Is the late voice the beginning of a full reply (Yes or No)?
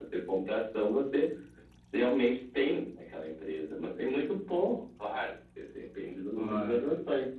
No